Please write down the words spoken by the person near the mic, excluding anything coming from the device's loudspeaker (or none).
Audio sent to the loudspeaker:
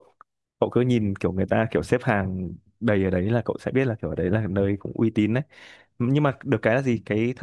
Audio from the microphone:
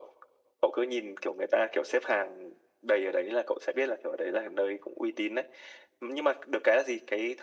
none